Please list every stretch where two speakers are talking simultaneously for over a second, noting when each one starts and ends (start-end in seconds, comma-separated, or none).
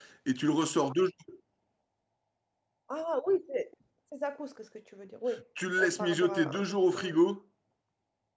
5.8-7.1